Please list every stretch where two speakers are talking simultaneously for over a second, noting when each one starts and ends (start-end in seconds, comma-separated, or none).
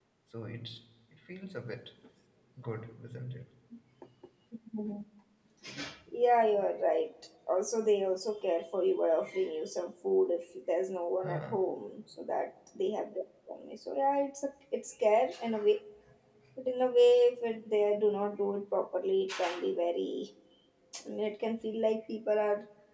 none